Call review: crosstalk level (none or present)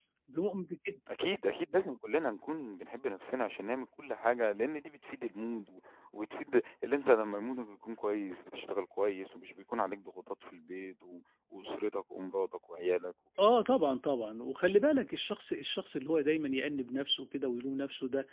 none